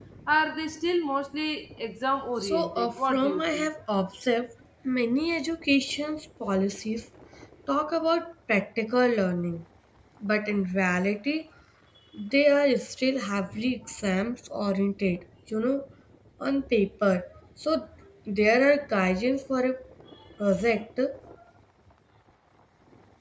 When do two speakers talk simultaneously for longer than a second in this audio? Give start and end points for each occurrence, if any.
2.4-3.7

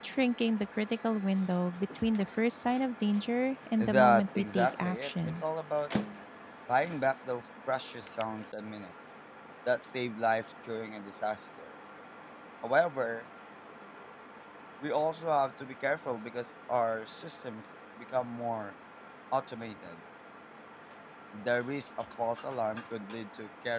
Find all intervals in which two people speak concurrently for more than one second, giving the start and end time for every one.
3.8-5.4

